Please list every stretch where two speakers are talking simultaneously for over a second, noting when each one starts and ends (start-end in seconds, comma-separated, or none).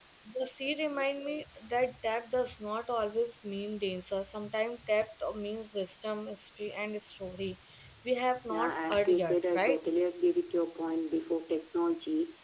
8.5-9.8